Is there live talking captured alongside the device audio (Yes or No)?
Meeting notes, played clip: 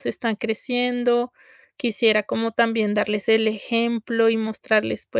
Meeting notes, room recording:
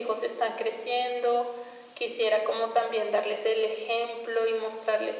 No